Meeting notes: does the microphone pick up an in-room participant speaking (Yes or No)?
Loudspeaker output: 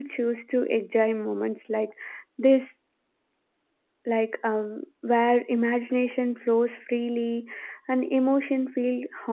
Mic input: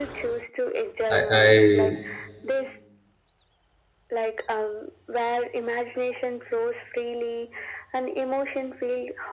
Yes